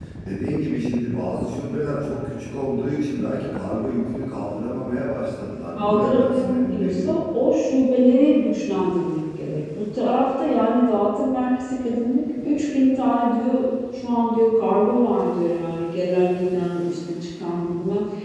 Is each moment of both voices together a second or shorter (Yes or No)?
No